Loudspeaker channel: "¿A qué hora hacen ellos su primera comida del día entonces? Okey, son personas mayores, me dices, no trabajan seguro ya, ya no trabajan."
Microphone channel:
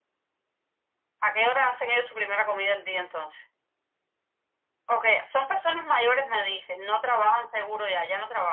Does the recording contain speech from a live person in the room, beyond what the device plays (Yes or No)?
No